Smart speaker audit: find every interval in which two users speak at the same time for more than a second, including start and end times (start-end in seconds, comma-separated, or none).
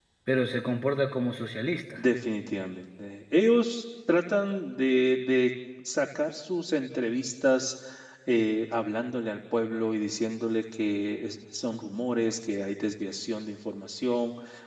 none